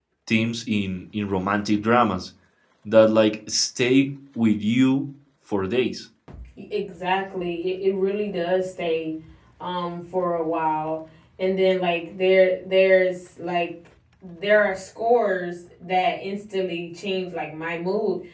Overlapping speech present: No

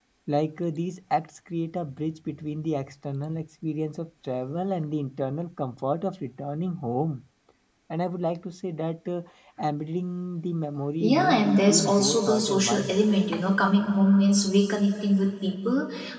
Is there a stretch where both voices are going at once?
Yes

